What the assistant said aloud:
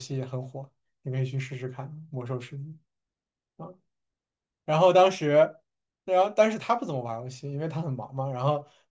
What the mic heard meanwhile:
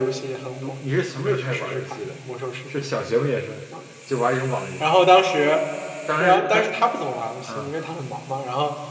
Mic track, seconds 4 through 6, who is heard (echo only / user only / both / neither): both